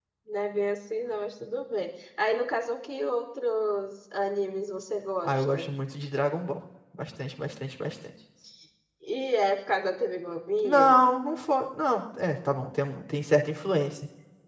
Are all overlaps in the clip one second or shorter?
Yes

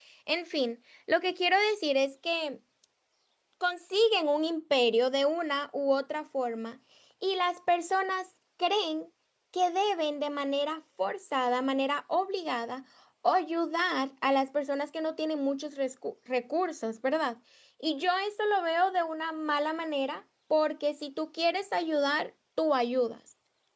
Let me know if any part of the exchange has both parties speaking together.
No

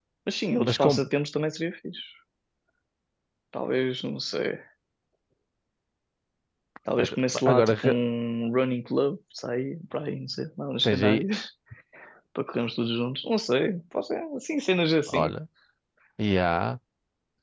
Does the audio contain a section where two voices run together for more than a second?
No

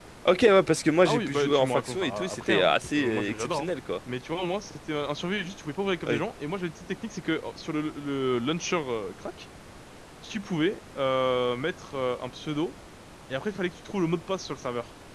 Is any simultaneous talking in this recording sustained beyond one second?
Yes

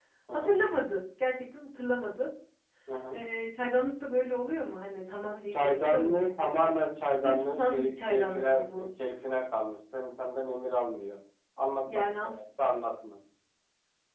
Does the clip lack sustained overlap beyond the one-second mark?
No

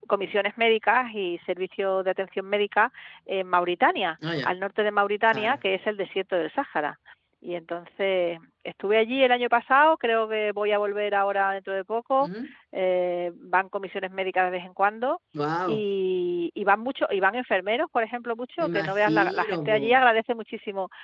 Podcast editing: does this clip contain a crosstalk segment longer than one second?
Yes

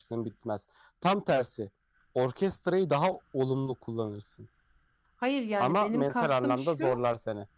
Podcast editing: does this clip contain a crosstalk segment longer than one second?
Yes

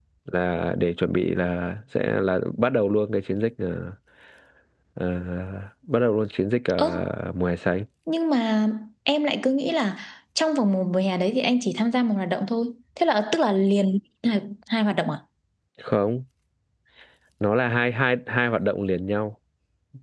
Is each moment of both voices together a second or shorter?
Yes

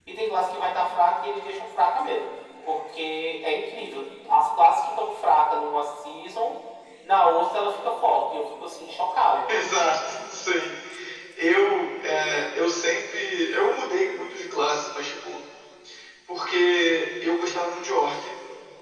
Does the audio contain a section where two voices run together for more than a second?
No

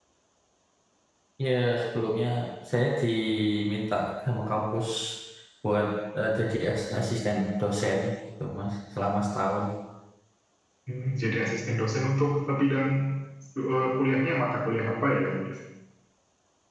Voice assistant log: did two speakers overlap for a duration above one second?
No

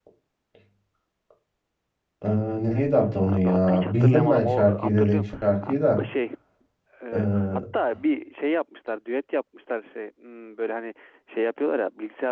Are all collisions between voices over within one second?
No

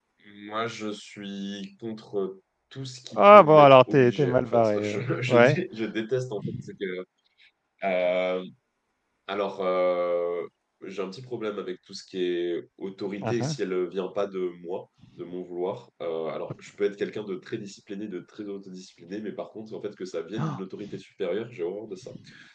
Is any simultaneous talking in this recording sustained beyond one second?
Yes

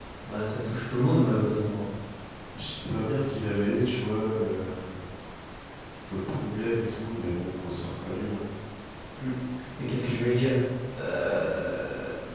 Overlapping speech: No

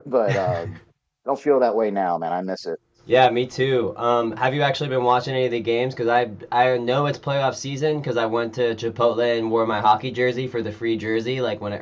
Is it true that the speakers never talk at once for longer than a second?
Yes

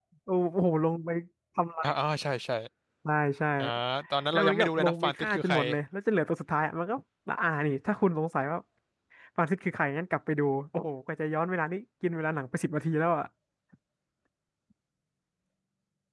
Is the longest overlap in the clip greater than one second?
Yes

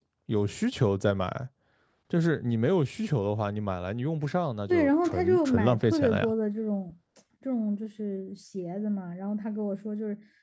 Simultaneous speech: Yes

